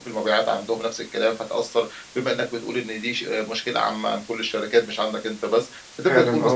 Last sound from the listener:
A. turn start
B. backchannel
B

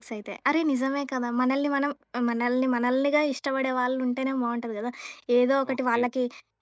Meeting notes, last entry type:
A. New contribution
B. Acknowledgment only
B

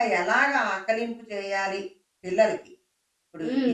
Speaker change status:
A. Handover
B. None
A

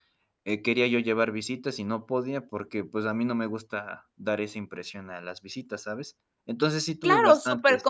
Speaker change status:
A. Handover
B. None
A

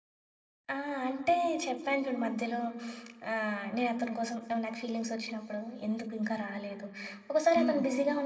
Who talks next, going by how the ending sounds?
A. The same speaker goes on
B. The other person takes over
A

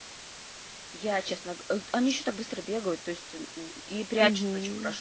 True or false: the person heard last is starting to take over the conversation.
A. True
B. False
B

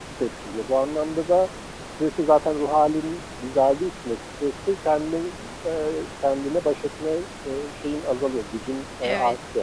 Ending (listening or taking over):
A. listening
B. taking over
B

